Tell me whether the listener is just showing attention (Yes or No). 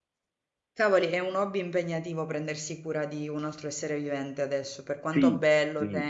No